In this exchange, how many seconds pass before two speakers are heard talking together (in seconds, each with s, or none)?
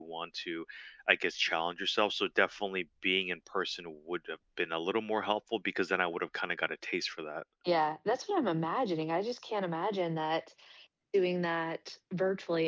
none